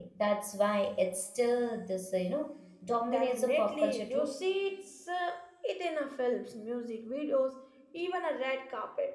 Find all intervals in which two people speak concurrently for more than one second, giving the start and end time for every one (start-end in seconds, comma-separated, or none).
3.1-4.4